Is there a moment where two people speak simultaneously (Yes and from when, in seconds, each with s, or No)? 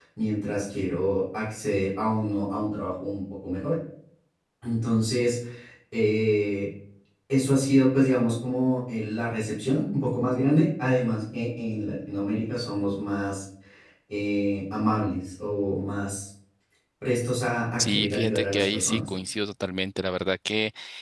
Yes, from 17.8 s